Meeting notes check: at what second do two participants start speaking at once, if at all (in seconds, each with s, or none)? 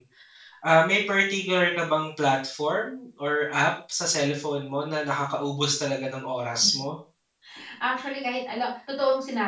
none